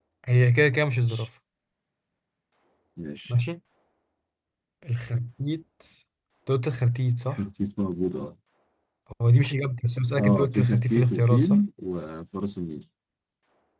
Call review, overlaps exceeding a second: present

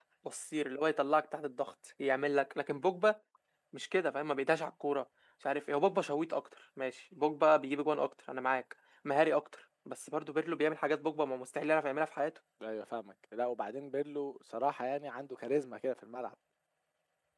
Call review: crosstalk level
none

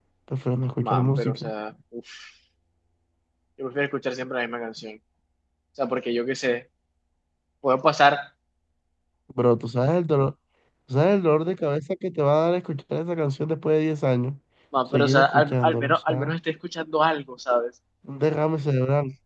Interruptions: present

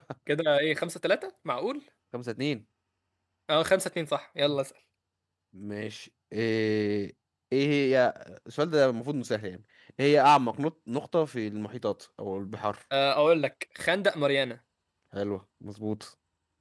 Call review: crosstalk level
none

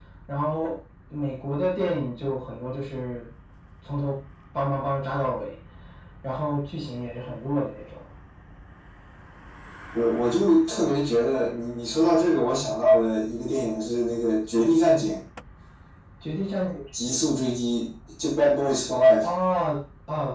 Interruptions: none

